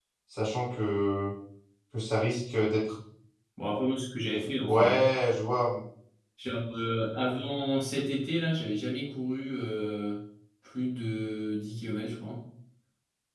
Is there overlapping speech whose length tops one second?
No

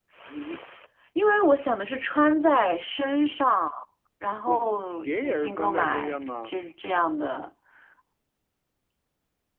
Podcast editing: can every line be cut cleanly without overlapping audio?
No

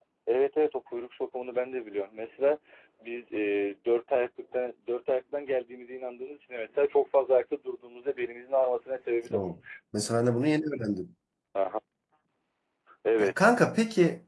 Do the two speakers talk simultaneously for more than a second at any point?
No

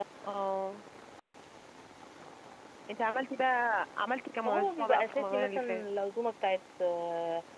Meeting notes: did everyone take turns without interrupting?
No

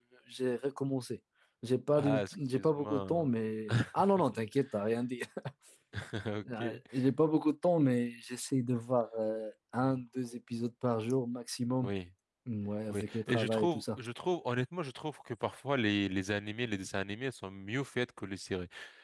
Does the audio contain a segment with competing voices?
Yes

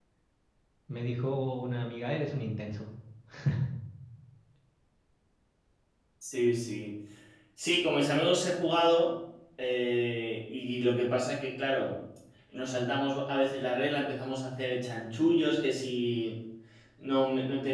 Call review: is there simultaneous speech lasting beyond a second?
No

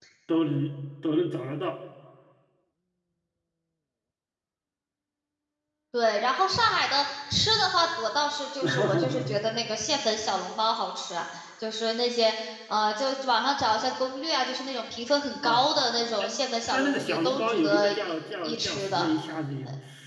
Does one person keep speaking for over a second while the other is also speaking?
Yes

